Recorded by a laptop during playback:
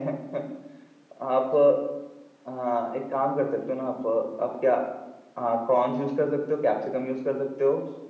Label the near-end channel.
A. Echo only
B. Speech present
A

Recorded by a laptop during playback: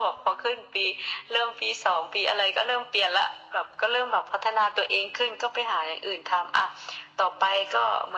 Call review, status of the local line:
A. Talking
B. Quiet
B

